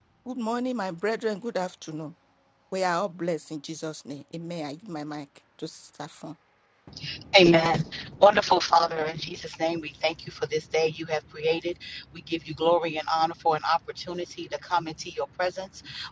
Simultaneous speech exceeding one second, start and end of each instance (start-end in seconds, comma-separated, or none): none